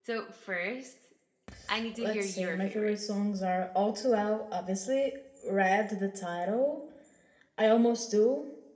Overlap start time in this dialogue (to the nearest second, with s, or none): 2 s